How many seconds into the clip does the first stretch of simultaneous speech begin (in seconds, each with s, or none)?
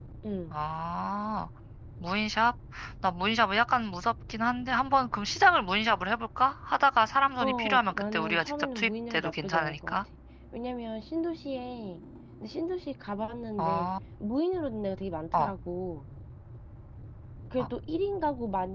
7.4 s